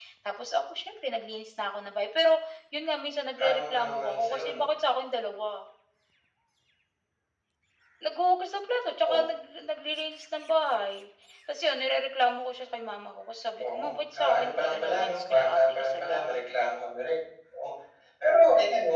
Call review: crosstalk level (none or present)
present